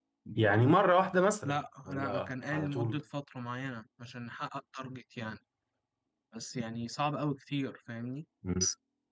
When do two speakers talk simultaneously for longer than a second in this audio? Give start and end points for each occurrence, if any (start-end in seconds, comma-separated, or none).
1.4-3.0